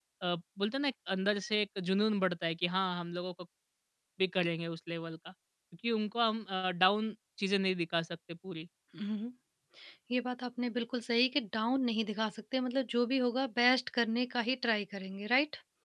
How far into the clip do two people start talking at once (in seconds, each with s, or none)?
none